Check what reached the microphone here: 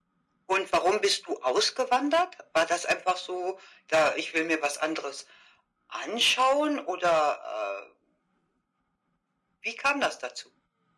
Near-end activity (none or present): none